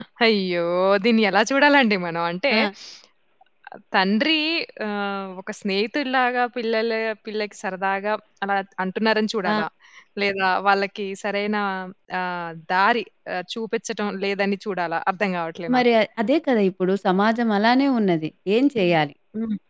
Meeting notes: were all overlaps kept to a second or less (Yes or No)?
Yes